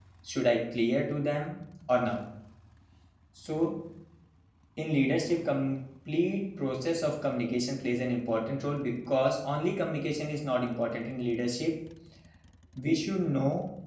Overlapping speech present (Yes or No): No